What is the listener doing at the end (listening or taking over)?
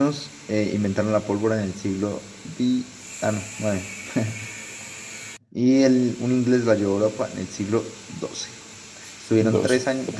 listening